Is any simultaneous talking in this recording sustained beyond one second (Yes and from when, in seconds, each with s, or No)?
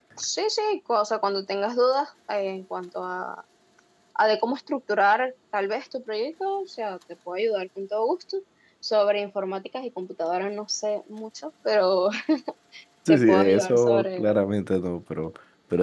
Yes, from 13.1 s